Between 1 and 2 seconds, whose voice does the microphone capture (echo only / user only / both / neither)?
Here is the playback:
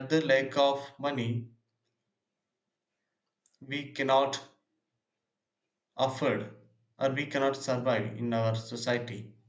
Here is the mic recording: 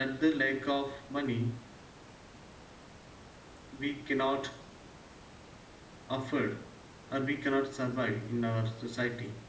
echo only